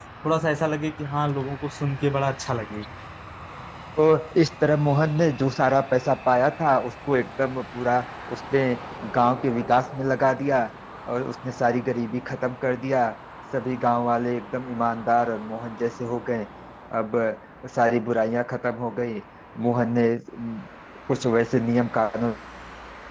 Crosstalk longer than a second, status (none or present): none